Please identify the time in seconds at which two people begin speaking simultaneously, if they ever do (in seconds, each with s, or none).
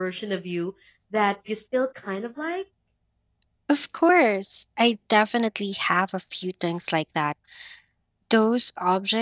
none